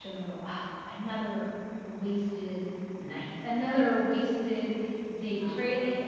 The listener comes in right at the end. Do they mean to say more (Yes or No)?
No